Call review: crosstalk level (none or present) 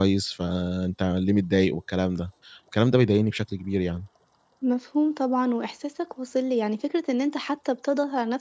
none